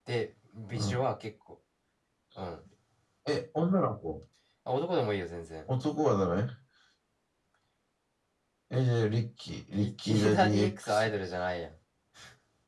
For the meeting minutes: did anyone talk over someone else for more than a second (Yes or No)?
Yes